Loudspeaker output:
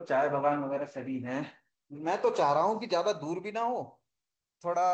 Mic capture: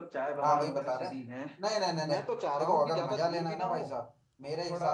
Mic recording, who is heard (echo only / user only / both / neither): both